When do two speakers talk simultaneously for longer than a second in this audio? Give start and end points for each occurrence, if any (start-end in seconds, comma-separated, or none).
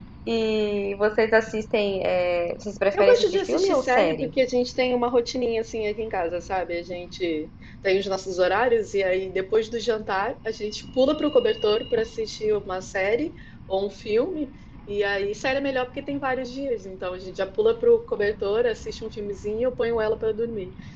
2.9-4.3